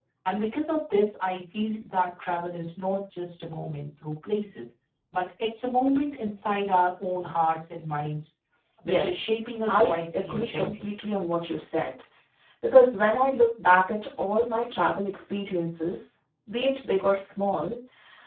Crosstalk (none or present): present